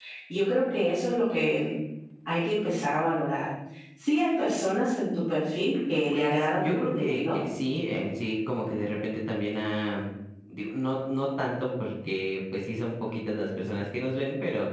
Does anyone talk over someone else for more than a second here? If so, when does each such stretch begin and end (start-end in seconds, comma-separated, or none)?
6.1-7.4